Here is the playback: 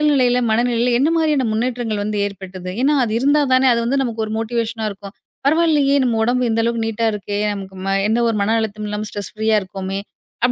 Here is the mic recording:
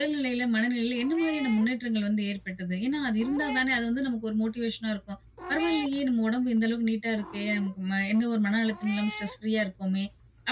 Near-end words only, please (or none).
none